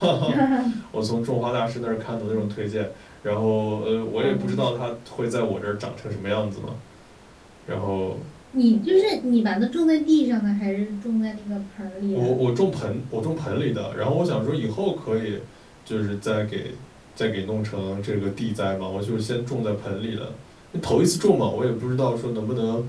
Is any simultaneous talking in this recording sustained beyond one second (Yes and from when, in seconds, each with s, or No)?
No